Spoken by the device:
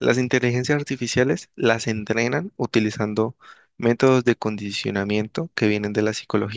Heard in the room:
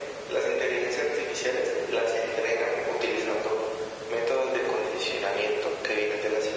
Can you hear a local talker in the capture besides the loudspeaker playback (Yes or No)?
No